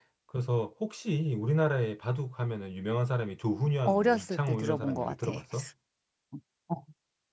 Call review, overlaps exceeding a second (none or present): present